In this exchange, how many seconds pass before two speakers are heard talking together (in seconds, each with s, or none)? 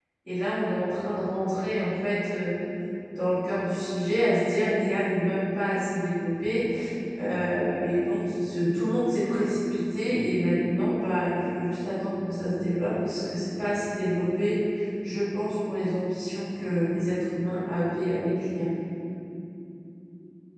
none